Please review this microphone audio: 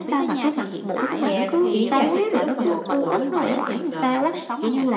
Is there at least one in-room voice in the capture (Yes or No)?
Yes